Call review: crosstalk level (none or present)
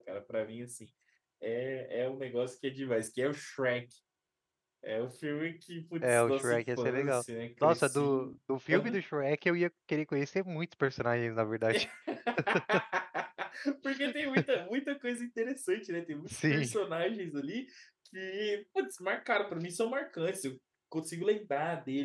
present